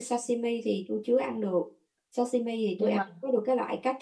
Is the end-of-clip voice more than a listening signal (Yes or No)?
No